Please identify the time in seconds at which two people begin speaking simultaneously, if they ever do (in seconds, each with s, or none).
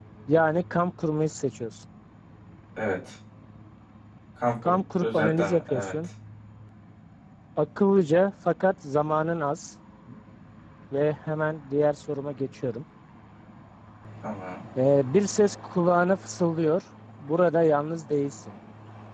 4.6 s